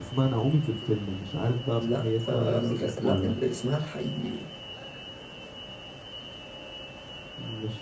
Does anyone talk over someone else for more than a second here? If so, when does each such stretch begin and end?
1.8-3.3

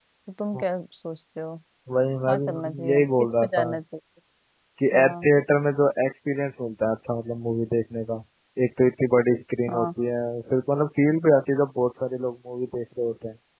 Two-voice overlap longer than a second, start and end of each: 2.3-3.7

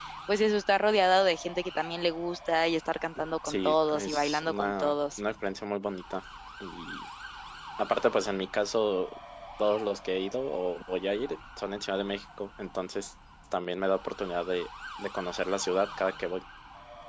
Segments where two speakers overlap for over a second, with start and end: 3.4-5.2

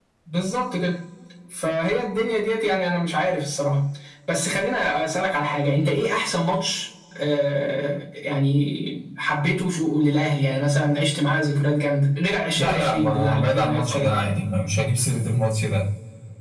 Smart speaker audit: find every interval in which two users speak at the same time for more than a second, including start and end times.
12.6-14.2

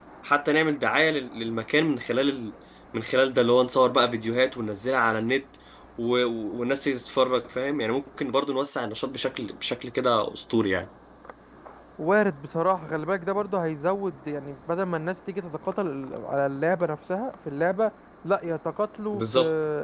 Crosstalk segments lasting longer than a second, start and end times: none

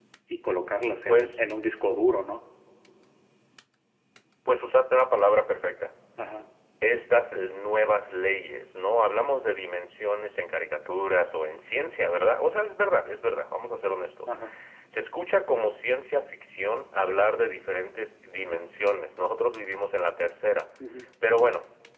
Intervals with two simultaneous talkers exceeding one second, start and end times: none

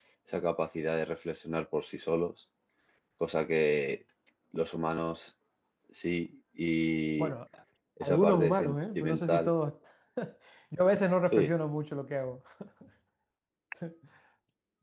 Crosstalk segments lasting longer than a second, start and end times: 8.0-9.5

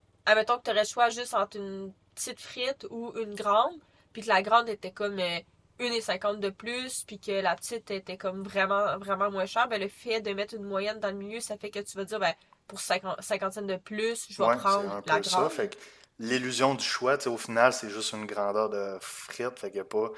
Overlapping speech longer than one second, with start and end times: 14.4-15.7

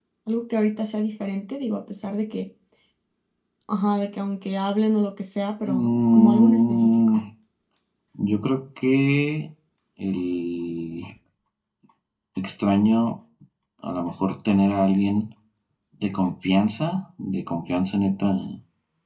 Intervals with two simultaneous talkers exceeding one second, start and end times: 5.6-7.2

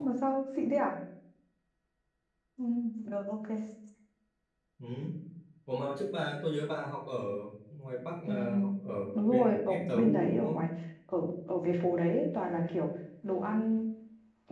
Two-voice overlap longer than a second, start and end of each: 9.2-10.6

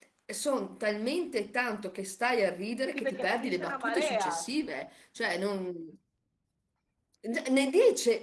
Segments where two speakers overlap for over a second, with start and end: 3.0-4.5

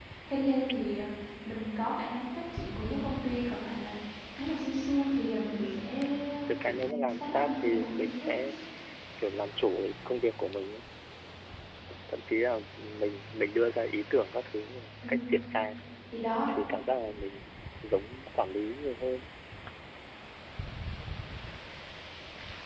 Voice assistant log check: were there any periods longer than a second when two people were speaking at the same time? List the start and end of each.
6.6-8.3

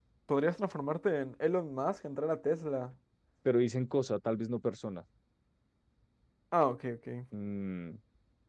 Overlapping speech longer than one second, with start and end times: none

